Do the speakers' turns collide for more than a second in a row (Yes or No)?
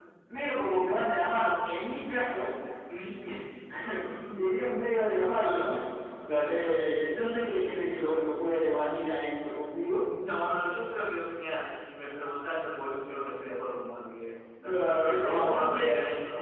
Yes